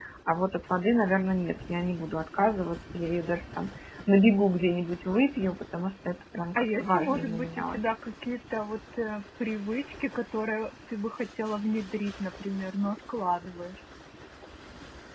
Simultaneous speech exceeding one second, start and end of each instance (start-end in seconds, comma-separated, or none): 6.6-7.9